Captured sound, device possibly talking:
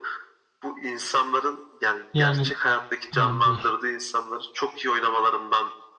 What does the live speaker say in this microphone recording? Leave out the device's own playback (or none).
Yani ha, buyur.